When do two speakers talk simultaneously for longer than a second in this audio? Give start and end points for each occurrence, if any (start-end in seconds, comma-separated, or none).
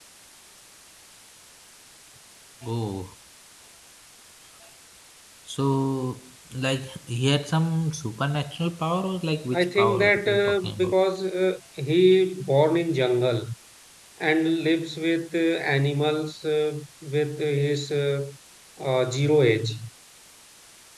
9.5-10.9